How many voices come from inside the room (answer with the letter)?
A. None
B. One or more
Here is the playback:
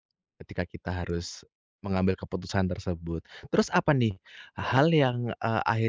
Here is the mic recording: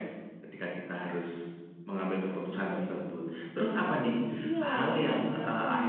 B